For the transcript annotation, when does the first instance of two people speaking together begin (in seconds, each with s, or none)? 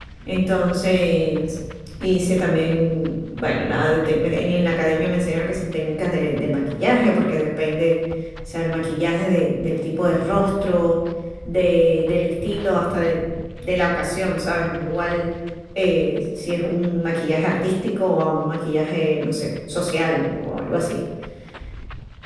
none